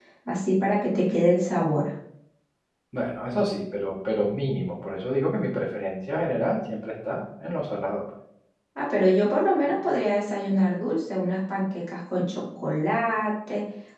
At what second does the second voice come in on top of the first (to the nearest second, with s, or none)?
none